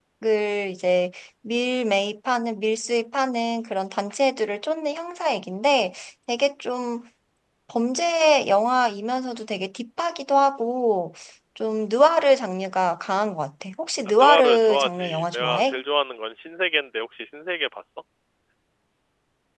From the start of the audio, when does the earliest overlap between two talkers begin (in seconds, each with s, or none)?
14.1 s